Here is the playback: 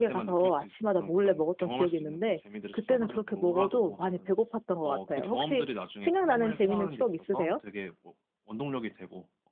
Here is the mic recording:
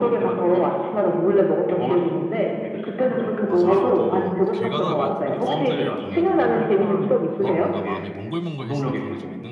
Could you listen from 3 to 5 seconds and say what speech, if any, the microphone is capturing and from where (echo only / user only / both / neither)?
both